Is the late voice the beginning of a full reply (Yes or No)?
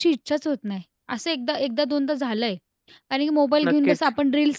No